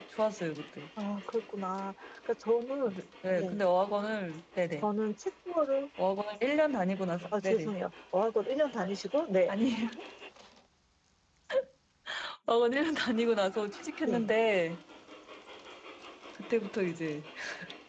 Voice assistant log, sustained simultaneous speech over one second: none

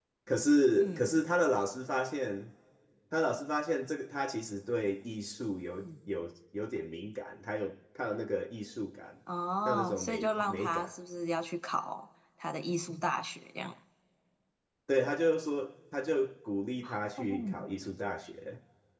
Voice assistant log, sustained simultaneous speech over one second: present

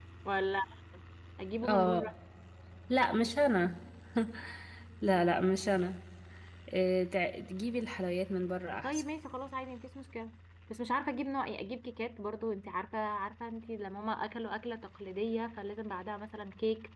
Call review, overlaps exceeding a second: none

